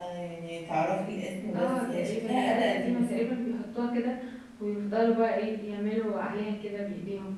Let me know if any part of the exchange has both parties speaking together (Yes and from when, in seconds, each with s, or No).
Yes, from 1.5 s